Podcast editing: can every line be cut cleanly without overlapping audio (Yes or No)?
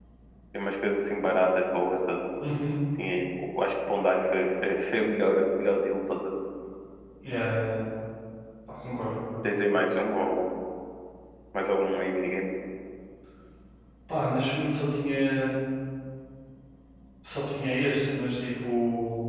Yes